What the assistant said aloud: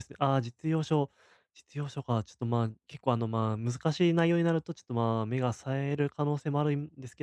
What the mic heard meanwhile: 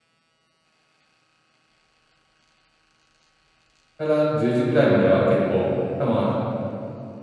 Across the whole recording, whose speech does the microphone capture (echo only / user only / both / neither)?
user only